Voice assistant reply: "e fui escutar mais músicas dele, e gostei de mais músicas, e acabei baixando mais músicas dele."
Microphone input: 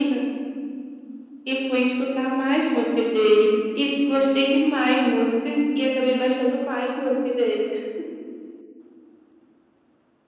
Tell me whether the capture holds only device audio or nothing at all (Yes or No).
Yes